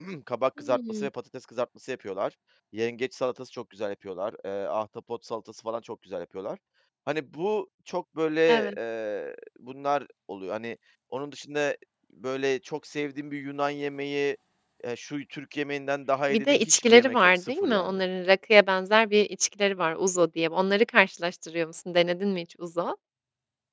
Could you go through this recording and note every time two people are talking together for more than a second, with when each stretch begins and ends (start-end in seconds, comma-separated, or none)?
16.3-18.0